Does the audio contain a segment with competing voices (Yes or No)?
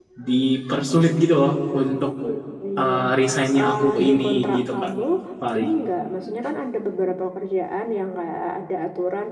Yes